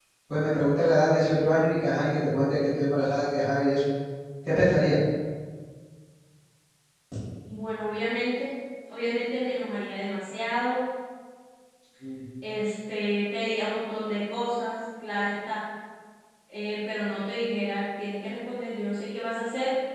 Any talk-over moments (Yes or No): No